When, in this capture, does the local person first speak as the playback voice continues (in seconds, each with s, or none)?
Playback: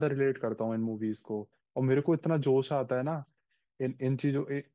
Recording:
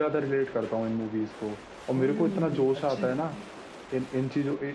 1.9 s